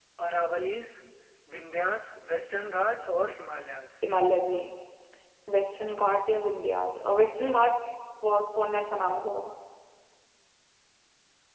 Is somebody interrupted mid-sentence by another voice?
No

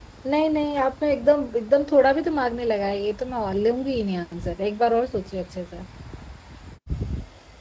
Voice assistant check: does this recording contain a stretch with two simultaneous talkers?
No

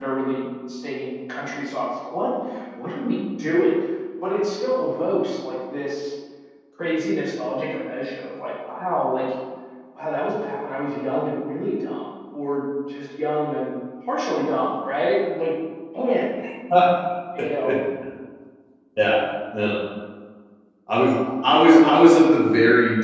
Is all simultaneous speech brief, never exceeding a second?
Yes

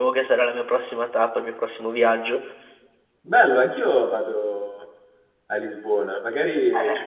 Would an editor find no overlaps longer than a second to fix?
Yes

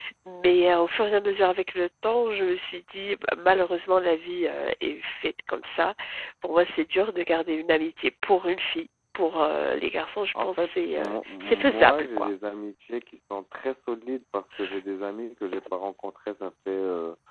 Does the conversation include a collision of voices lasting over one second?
Yes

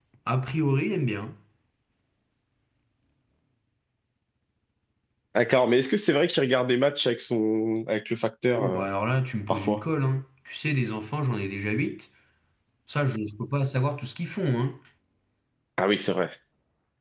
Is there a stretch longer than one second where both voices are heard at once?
No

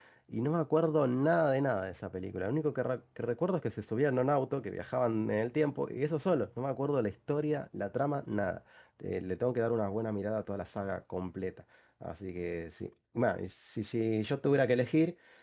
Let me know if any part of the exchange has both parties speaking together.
No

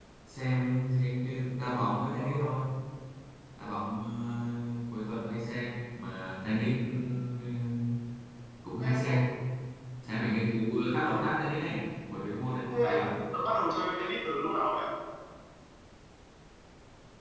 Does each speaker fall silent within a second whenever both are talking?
Yes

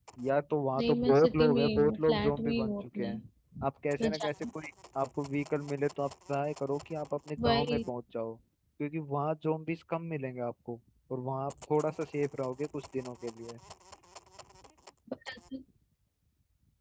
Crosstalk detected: Yes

